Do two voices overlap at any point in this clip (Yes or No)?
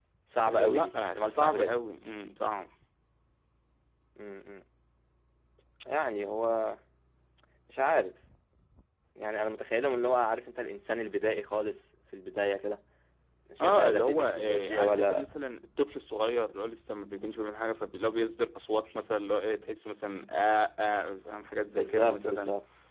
Yes